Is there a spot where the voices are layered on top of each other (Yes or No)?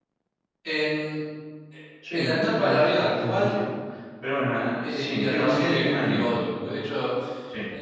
Yes